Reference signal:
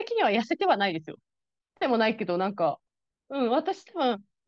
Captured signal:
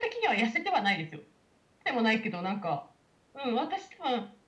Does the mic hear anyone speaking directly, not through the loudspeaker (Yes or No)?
No